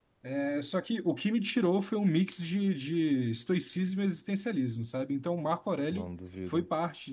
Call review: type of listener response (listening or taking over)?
listening